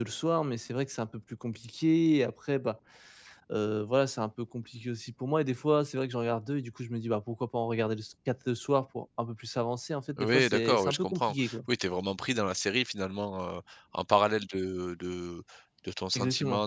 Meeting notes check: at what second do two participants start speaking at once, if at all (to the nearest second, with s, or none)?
10 s